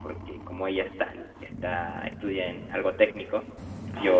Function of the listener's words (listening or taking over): listening